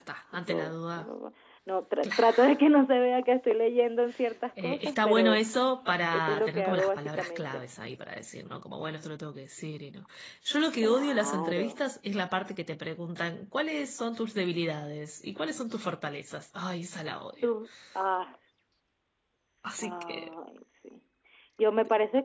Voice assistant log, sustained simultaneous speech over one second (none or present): present